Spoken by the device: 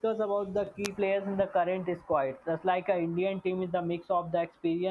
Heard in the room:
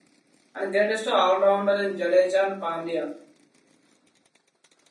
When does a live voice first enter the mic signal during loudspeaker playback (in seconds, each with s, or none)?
0.5 s